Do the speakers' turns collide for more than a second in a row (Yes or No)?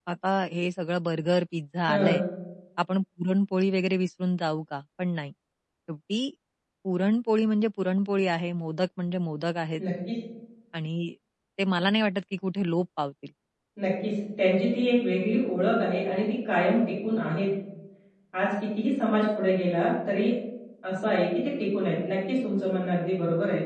No